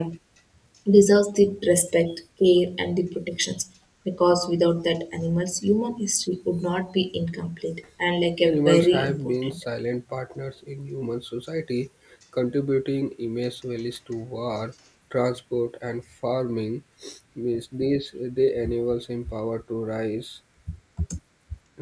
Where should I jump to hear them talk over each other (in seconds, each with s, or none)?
8.4 s